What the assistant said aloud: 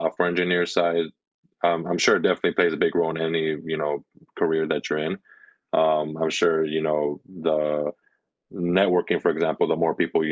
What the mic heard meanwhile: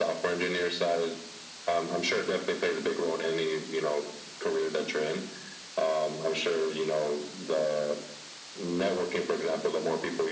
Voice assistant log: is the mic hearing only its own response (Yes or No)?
Yes